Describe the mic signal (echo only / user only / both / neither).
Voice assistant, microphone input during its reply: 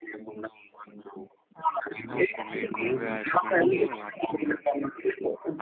both